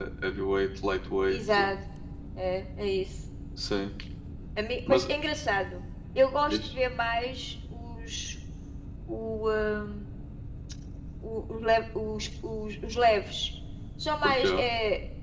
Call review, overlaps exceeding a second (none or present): none